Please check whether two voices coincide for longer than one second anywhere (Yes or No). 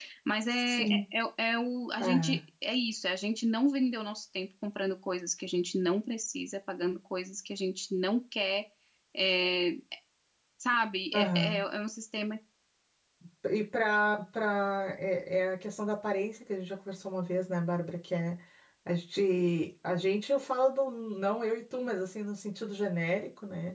No